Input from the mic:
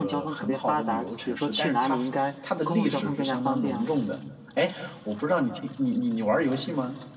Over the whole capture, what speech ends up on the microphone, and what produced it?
both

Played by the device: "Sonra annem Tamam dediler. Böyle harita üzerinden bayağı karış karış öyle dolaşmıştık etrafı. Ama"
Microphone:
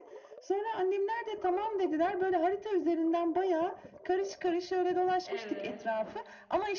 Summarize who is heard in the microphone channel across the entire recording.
both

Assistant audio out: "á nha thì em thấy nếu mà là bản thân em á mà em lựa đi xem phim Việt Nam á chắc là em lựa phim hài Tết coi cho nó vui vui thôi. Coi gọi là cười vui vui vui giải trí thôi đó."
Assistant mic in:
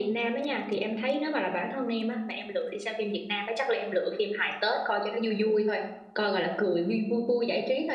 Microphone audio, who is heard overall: echo only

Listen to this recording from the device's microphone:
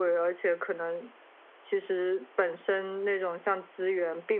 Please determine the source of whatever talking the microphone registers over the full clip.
echo only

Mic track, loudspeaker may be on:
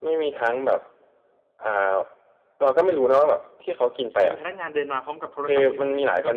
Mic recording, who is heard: both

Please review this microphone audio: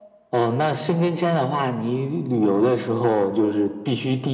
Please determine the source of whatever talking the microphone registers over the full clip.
echo only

